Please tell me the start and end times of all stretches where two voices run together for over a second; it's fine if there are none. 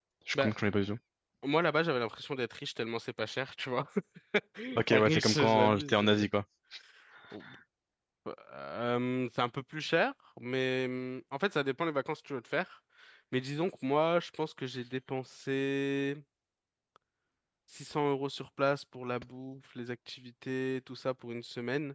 4.9-6.3

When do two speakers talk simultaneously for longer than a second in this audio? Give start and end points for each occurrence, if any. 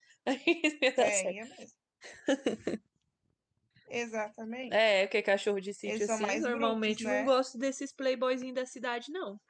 5.8-7.3

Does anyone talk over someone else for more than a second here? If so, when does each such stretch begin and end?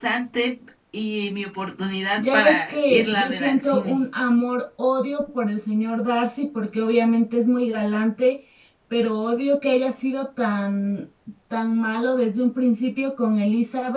2.2-4.0

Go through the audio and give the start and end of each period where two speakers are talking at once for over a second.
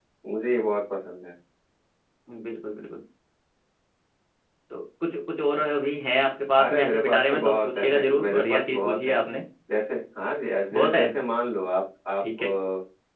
6.6-9.2

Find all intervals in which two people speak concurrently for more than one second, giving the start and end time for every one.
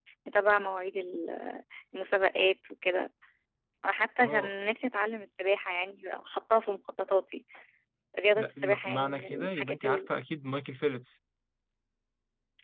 8.3-10.0

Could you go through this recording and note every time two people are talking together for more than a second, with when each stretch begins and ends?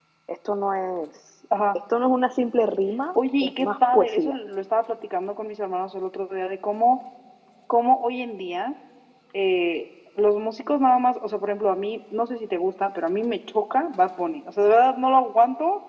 3.1-4.4

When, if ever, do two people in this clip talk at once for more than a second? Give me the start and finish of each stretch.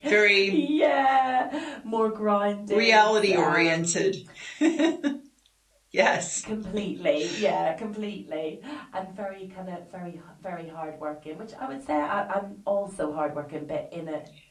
2.7-4.1

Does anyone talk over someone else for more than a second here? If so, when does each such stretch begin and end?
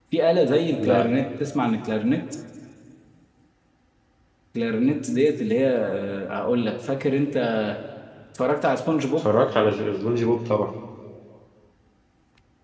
none

